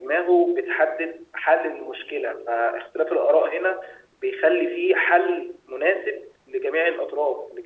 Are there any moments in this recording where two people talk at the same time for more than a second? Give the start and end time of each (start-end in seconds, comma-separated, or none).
none